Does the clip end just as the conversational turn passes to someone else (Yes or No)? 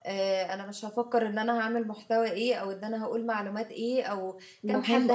No